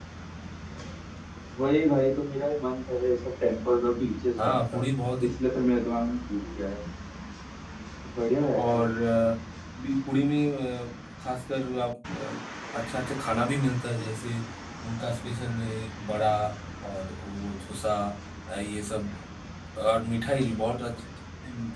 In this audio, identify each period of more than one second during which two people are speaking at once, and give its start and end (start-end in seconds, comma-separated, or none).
none